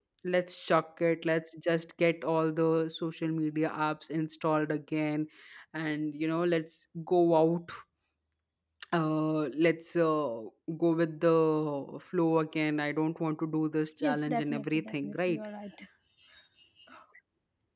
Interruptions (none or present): present